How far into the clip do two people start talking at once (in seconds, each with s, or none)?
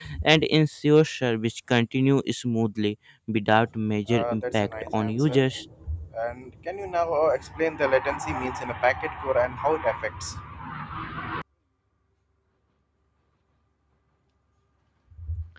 4.1 s